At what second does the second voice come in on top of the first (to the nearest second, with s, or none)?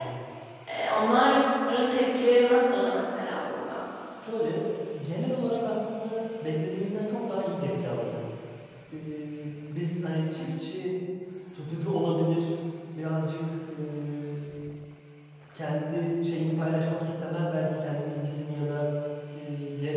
none